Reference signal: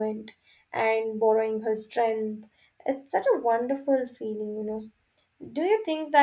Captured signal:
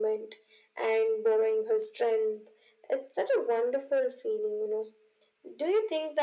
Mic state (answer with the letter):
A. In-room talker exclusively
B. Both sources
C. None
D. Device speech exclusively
D